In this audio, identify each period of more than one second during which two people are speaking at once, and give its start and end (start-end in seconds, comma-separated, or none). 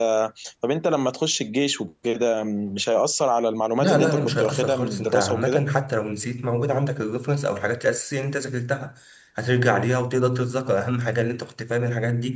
3.8-5.6